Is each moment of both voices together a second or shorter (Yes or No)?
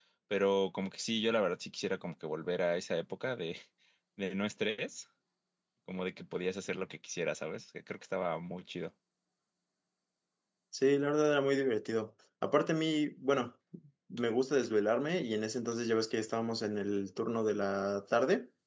Yes